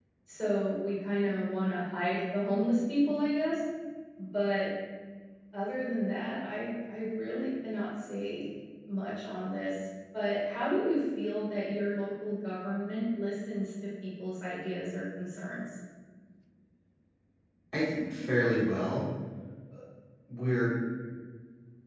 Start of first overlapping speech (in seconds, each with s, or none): none